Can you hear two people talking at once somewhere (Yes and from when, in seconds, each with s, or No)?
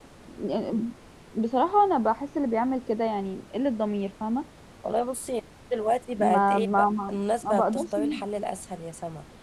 Yes, from 6.2 s